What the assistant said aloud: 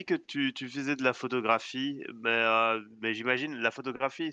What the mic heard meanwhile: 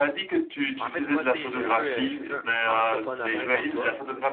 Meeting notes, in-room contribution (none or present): present